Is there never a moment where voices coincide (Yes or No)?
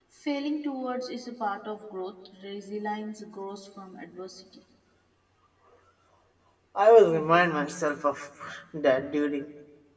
Yes